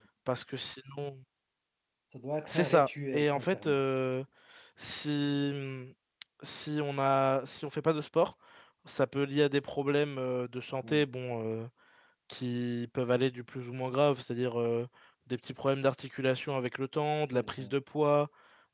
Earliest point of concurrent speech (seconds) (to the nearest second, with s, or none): 2 s